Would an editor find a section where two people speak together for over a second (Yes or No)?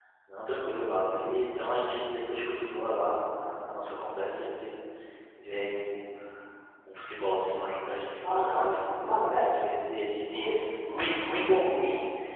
Yes